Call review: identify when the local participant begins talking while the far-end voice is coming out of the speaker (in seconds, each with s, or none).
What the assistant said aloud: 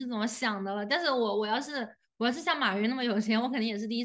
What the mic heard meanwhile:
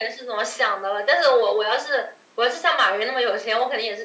none